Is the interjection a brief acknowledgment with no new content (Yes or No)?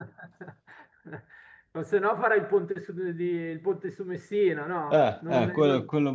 No